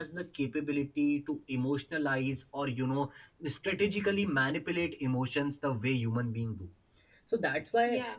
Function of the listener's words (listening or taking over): listening